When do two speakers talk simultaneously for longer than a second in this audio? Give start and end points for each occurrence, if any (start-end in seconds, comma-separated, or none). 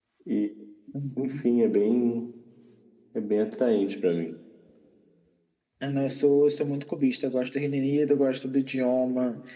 none